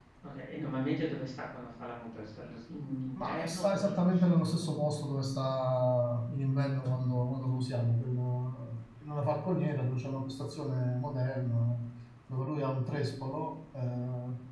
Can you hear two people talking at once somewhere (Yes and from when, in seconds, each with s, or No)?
Yes, from 3.1 s